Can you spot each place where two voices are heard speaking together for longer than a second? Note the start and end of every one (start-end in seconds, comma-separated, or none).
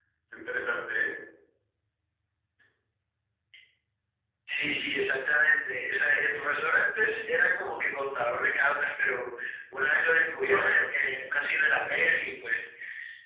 none